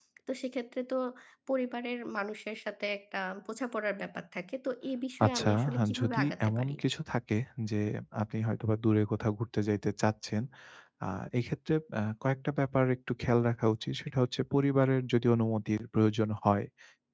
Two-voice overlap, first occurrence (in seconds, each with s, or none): 5.2 s